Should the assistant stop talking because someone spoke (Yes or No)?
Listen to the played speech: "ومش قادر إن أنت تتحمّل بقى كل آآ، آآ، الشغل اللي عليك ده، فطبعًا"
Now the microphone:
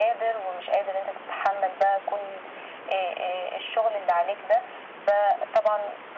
No